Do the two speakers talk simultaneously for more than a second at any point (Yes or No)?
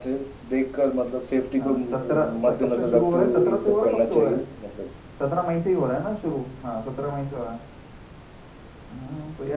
Yes